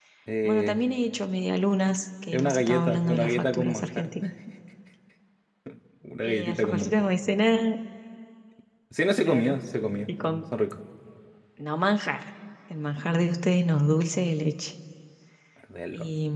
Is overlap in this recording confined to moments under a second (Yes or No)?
No